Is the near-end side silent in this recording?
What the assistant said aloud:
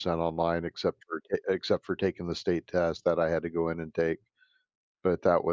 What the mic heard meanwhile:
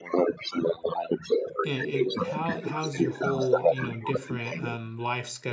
No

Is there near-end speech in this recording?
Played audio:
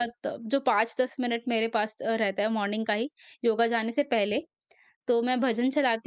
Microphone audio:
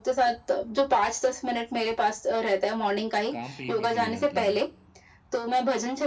Yes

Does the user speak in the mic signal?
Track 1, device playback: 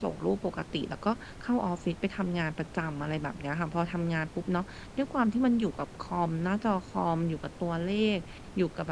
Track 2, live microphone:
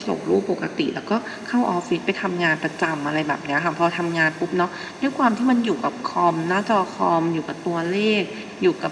No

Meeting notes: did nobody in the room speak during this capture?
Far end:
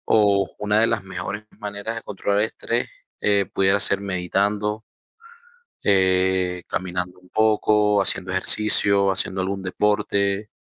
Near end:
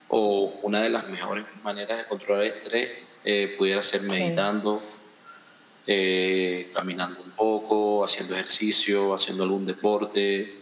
No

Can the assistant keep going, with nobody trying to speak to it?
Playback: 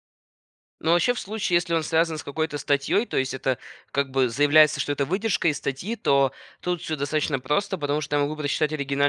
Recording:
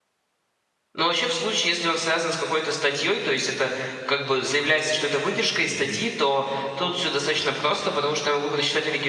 No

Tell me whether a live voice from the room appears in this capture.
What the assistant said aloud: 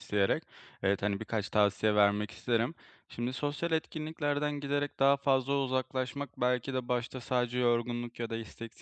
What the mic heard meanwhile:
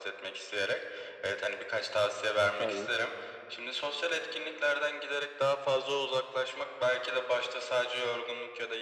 Yes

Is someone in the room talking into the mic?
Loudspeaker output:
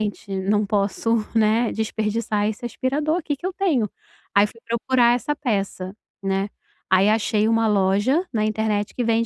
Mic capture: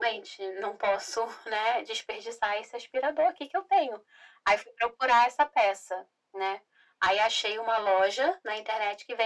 No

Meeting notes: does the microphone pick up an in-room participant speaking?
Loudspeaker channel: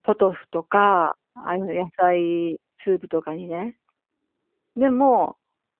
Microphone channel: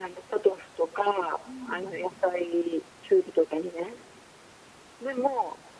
Yes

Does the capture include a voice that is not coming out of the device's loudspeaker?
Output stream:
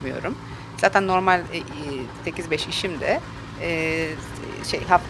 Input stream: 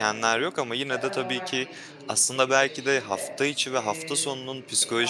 Yes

